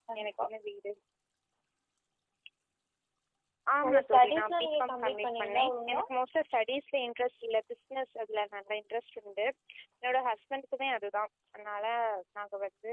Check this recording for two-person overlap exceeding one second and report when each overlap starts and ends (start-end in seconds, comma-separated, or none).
3.8-6.0